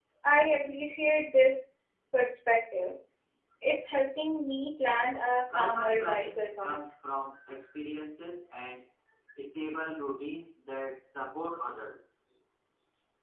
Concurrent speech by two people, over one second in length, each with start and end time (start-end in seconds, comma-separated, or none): 5.5-6.8